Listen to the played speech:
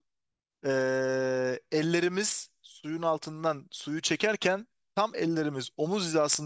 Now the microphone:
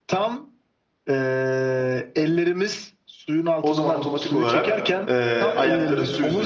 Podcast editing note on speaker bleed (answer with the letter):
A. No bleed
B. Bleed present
B